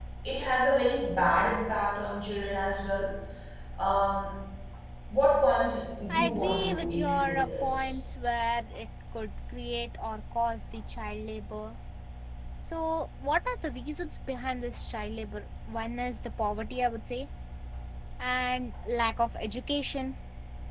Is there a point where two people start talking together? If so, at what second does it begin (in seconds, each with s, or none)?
6.1 s